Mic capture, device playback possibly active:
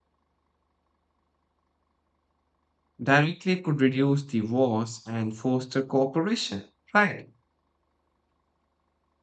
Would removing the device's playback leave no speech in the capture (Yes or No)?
No